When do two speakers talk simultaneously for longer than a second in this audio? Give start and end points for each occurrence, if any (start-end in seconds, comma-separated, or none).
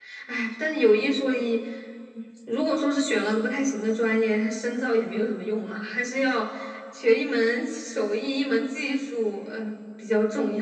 none